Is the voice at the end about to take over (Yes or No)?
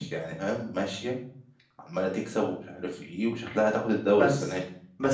Yes